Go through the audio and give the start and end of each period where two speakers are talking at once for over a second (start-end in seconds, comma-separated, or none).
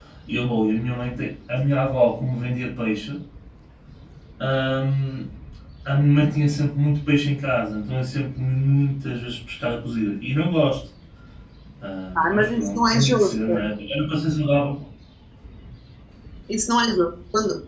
12.2-13.5